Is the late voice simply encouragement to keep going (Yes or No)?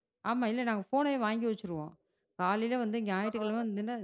Yes